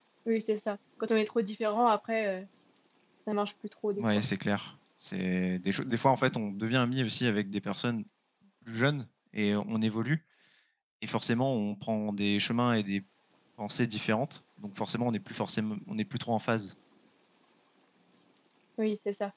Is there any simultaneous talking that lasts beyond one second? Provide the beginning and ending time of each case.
none

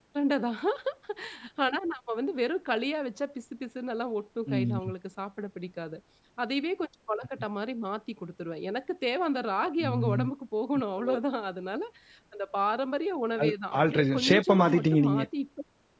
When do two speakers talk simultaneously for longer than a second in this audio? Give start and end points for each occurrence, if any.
13.4-15.2

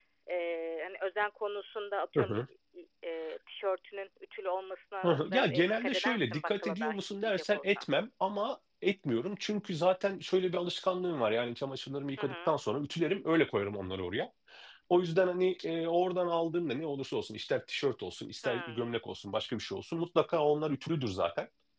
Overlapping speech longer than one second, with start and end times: 5.0-7.8

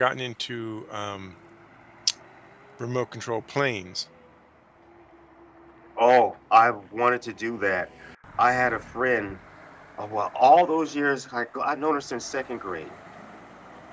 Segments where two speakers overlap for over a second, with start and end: none

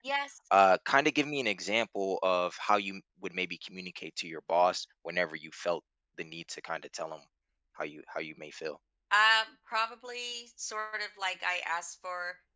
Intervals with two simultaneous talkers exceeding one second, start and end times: none

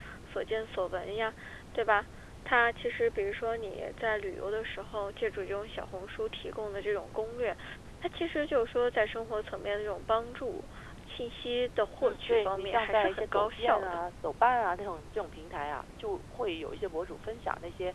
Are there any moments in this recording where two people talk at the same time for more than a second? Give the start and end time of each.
12.0-14.0

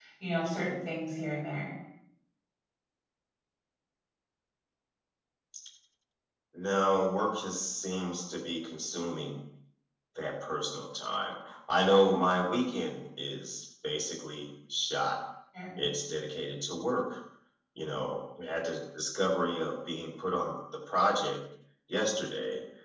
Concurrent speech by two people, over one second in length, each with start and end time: none

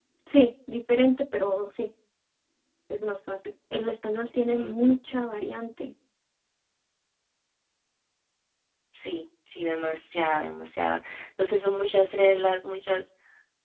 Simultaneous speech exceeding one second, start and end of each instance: none

